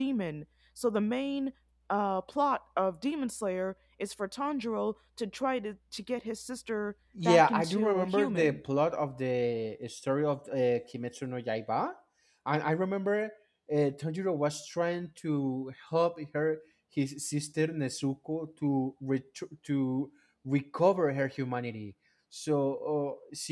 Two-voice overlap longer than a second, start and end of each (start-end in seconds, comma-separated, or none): 7.2-8.6